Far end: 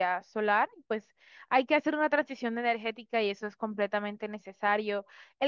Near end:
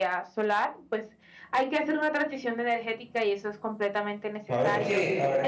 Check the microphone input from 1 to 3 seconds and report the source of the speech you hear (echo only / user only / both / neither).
echo only